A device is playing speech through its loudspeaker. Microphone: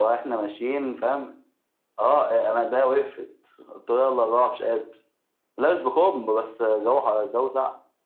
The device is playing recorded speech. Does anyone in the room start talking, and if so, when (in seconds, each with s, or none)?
none